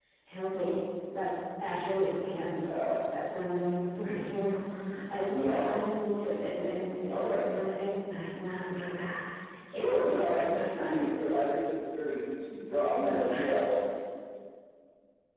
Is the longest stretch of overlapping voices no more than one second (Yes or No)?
No